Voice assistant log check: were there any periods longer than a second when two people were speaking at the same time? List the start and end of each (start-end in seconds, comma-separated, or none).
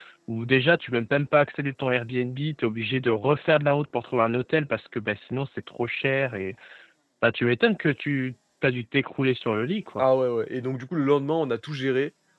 none